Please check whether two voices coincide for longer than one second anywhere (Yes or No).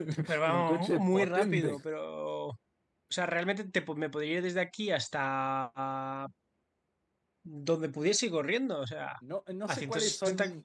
Yes